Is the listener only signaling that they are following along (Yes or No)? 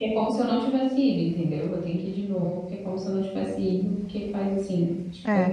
No